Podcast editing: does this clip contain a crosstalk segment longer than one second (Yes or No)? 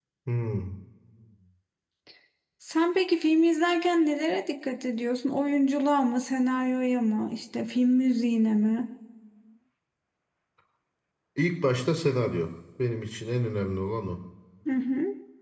No